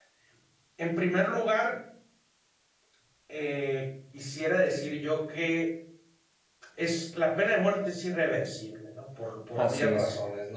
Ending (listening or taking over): listening